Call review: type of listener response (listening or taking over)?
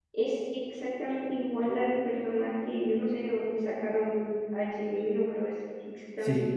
taking over